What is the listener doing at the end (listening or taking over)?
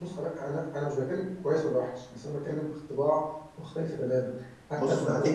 taking over